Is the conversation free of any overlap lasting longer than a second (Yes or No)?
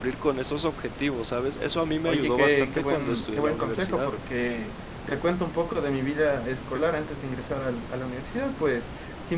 No